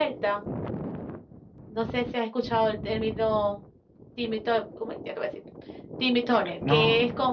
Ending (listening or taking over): taking over